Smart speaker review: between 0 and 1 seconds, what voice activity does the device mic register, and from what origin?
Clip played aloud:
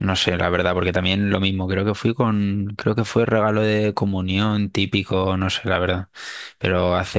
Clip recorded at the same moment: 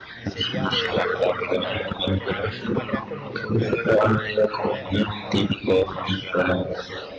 both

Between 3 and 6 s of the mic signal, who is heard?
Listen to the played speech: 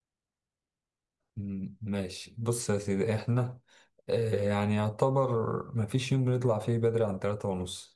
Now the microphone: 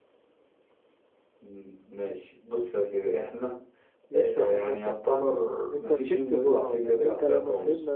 both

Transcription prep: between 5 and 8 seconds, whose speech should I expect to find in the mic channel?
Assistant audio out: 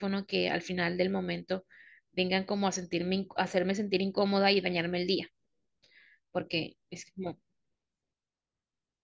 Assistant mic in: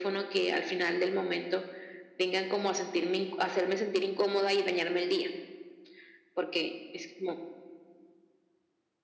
echo only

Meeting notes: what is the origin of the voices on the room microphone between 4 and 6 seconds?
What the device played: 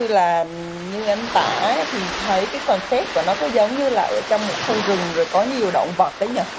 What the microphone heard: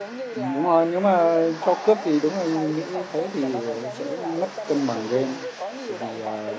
both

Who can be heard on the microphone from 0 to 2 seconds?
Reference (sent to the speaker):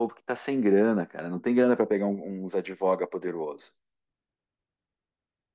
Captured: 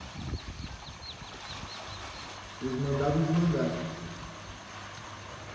neither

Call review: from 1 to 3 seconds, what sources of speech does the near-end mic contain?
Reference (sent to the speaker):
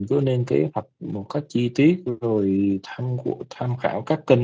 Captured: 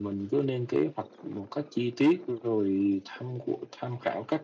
echo only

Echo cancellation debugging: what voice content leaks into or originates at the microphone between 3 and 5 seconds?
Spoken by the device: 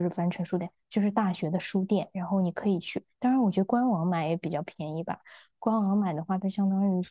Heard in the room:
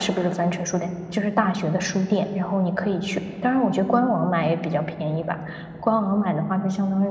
echo only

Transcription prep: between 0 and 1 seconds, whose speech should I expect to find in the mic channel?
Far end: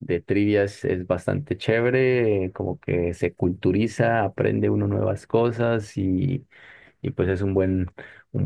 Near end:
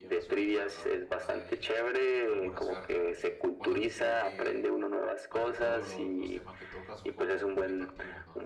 both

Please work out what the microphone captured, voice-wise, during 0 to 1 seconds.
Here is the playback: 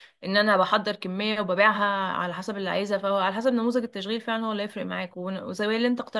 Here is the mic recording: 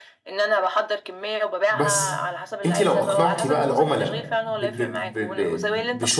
echo only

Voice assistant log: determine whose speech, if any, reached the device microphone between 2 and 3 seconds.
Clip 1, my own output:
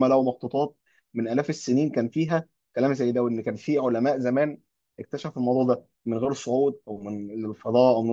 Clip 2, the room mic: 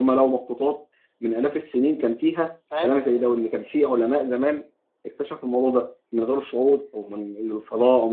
both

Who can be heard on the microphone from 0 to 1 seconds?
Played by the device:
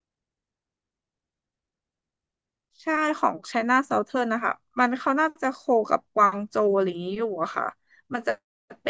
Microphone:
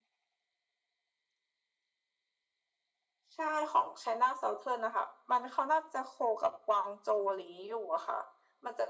neither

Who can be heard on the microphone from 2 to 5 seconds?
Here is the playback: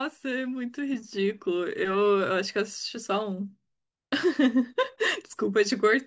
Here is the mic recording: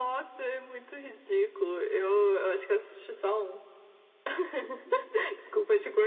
echo only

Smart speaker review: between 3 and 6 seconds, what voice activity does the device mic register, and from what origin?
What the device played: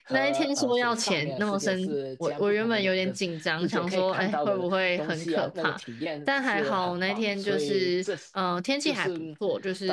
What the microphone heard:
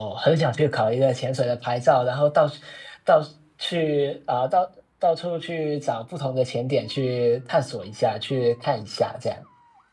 user only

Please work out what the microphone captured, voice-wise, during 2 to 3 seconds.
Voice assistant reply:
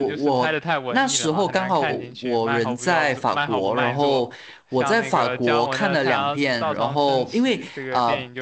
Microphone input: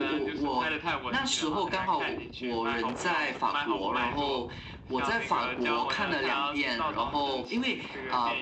echo only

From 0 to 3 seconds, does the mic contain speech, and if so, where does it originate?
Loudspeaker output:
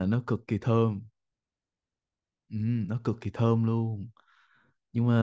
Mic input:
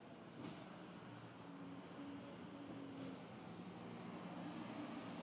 neither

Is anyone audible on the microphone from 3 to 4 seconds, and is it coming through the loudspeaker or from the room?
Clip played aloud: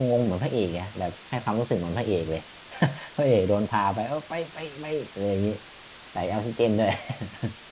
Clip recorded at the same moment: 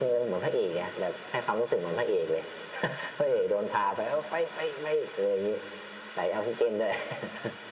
echo only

